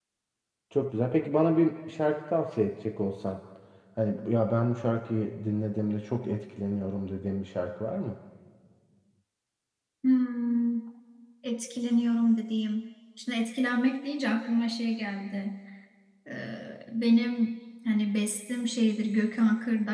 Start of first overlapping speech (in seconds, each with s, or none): none